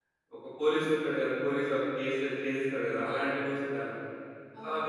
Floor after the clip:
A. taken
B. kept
A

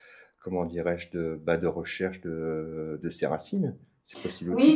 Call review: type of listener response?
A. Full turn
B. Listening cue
A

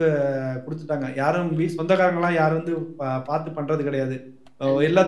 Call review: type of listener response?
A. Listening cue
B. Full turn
A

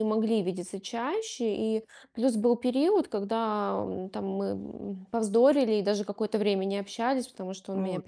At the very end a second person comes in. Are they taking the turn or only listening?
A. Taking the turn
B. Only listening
B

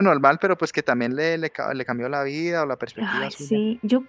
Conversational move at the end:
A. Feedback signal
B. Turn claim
B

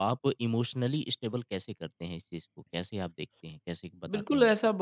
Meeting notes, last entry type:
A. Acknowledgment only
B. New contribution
B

